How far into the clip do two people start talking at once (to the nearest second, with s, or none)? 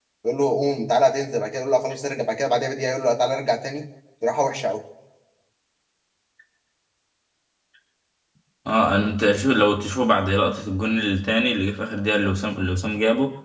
none